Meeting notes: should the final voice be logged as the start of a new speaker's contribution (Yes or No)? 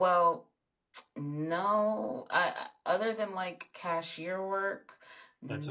Yes